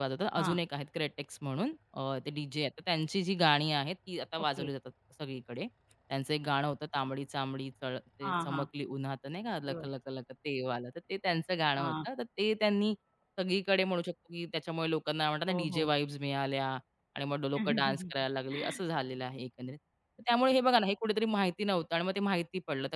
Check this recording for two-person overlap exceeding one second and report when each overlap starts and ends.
none

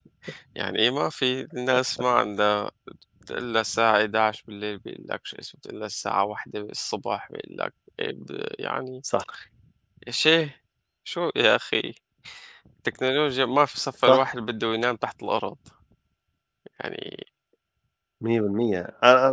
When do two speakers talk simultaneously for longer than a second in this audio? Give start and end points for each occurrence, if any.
none

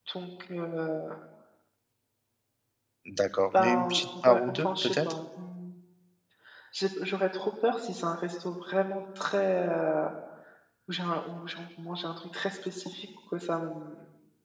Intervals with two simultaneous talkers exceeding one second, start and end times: 3.6-5.1

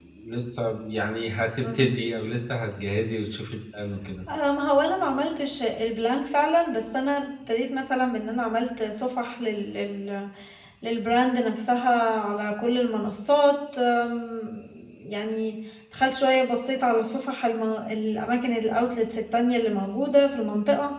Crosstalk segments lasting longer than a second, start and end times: none

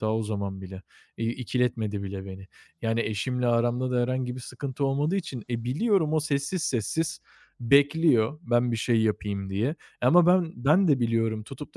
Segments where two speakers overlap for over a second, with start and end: none

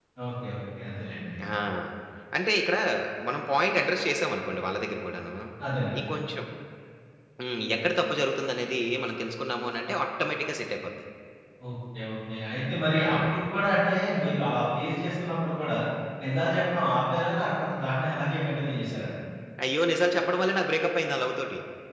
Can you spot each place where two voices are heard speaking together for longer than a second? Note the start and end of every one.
none

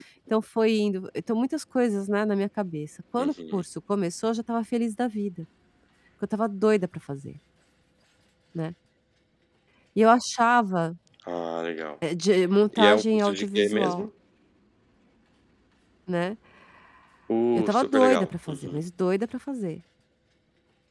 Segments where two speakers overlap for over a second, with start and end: 12.8-14.1, 17.5-18.8

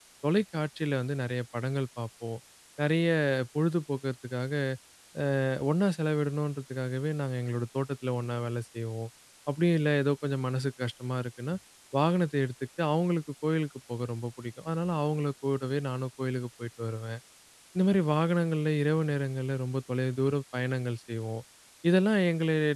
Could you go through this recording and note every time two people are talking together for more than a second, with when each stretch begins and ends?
none

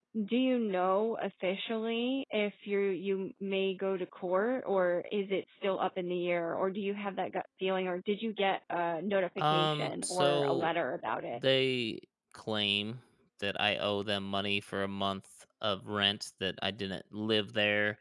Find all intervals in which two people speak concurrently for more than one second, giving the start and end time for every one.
9.4-10.7

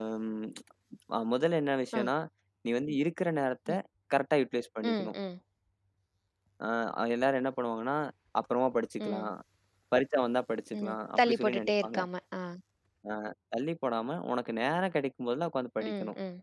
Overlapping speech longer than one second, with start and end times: 10.8-12.0

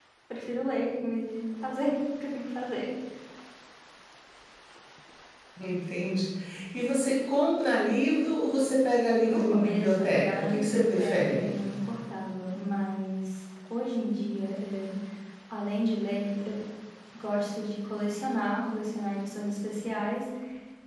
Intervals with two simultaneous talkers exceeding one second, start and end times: 9.2-11.5

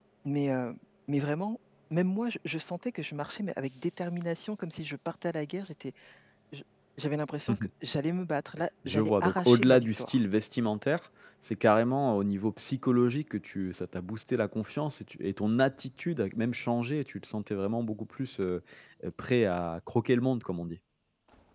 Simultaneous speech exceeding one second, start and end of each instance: 8.9-10.2

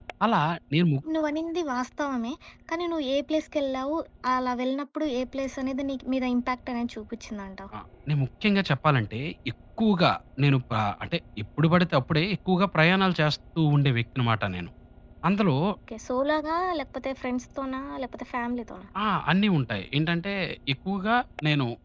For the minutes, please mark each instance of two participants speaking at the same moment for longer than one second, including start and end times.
none

